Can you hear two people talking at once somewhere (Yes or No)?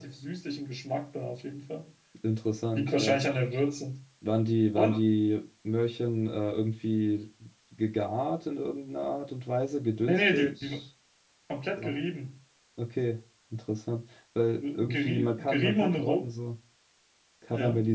Yes